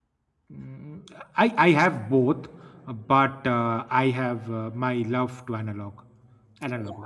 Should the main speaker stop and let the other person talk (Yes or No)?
Yes